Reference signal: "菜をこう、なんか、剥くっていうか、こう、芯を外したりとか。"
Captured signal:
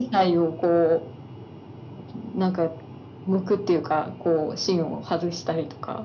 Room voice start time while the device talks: none

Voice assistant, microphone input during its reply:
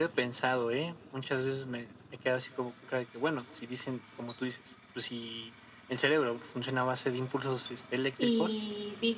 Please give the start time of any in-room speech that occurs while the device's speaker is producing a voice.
8.2 s

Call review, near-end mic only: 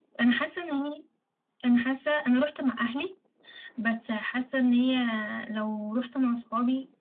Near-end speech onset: none

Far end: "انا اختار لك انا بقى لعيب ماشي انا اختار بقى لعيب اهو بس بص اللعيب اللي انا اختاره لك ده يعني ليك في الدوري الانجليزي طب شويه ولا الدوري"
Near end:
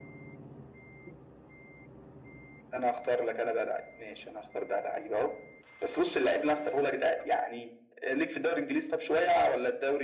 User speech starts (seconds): none

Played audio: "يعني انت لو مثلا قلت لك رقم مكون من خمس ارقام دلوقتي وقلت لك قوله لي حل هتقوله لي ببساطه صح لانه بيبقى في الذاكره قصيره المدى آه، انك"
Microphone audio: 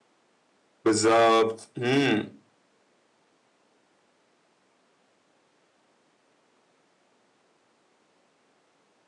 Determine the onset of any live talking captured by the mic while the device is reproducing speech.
0.8 s

